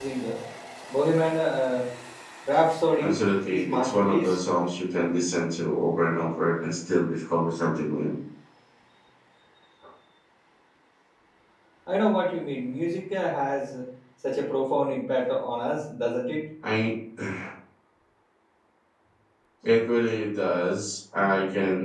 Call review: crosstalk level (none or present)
present